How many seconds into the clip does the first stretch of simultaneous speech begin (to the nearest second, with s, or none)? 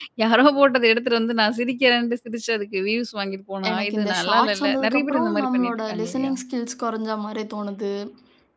4 s